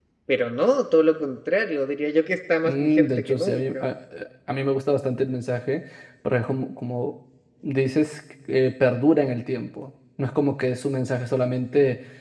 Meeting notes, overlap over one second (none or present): present